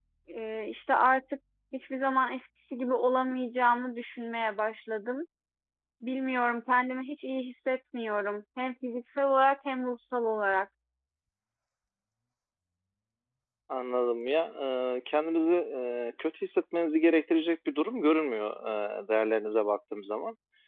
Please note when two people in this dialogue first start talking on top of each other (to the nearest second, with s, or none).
none